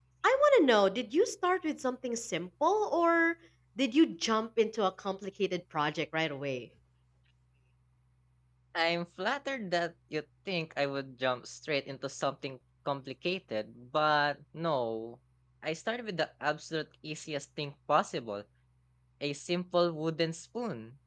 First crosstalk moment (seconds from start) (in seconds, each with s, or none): none